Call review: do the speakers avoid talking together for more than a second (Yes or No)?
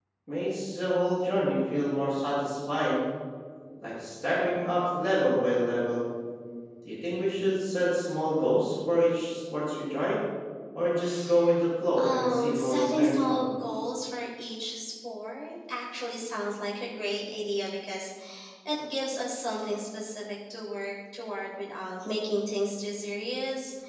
No